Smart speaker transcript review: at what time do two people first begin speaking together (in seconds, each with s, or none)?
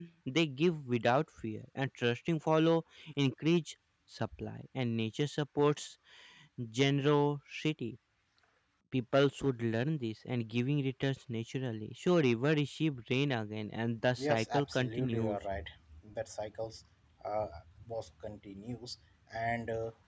14.1 s